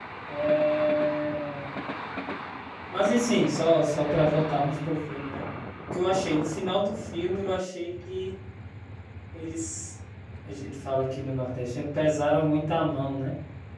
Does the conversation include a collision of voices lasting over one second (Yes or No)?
No